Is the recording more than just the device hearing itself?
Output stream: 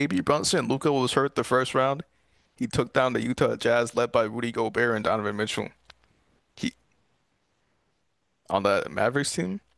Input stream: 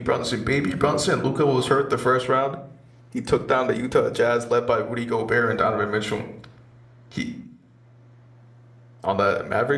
No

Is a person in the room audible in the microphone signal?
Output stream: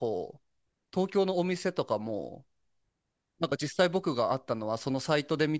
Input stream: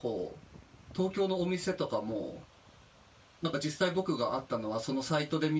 No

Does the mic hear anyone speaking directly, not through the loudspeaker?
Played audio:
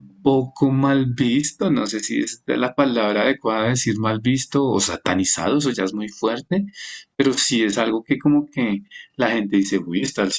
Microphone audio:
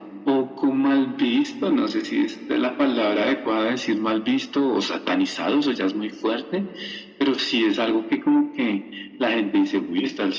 No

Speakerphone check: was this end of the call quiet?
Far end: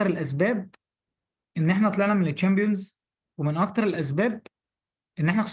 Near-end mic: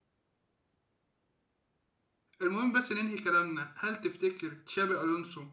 No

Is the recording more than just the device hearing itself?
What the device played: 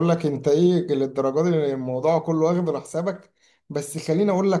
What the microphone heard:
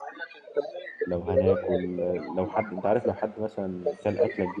Yes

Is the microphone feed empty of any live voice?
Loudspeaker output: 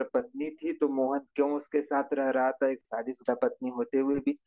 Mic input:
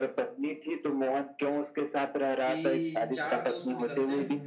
No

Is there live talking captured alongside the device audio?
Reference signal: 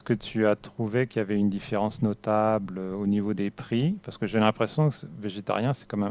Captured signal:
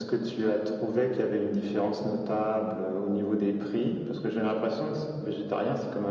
No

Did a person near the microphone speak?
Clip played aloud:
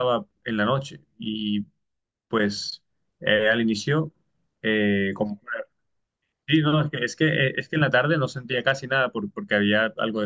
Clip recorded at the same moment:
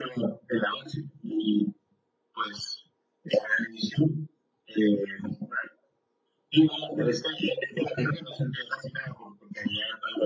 No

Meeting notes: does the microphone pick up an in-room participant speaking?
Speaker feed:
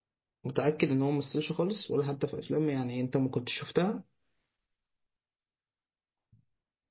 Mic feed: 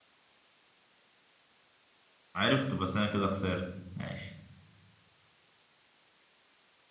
Yes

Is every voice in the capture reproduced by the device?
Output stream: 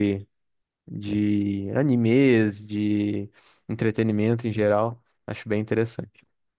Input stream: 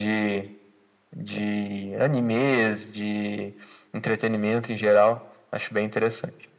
Yes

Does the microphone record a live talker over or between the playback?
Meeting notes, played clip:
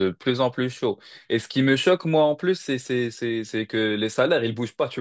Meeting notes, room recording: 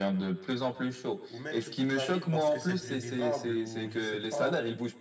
Yes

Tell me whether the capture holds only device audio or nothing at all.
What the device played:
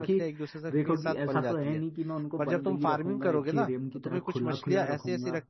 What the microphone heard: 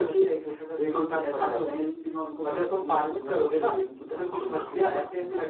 Yes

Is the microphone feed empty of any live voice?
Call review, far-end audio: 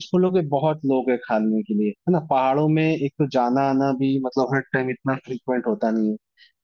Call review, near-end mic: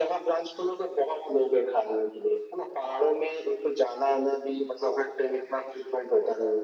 Yes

